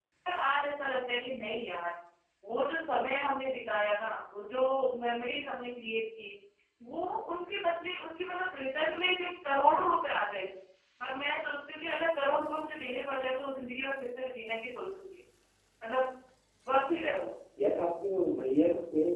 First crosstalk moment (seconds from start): none

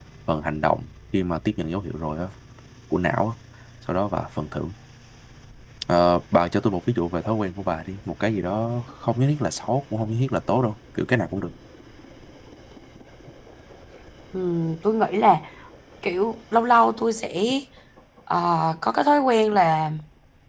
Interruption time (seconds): none

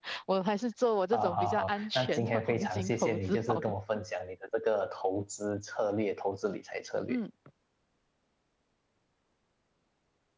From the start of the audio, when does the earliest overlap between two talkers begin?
1.1 s

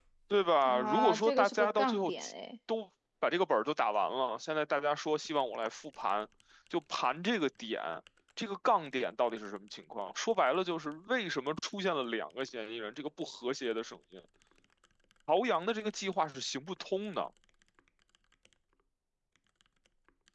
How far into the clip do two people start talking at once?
0.7 s

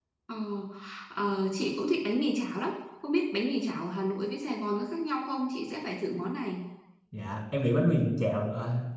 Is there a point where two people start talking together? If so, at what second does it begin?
none

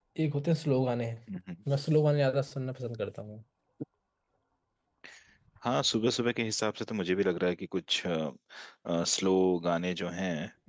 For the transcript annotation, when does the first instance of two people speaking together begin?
none

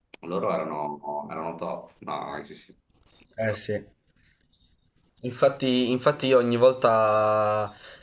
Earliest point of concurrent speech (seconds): none

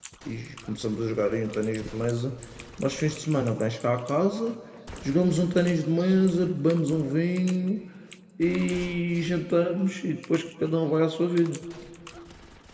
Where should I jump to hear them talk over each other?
none

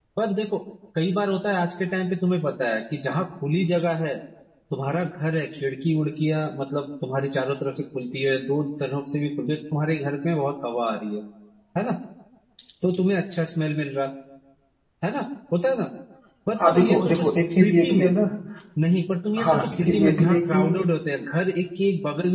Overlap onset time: 16.7 s

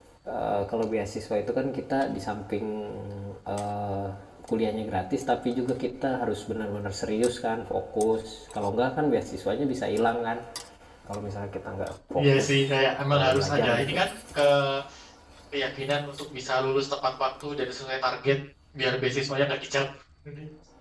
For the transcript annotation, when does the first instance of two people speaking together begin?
12.1 s

